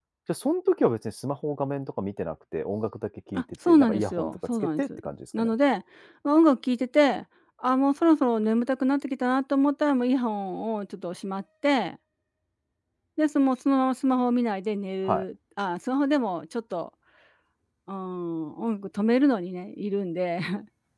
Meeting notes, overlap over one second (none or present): present